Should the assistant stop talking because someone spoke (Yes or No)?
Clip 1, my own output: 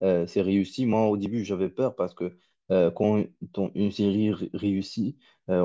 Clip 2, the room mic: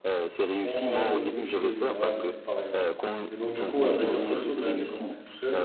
Yes